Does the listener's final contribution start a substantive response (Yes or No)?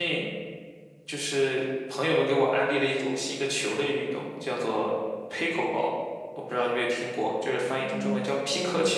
Yes